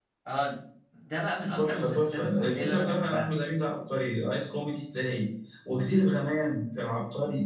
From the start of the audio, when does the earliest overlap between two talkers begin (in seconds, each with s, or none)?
1.3 s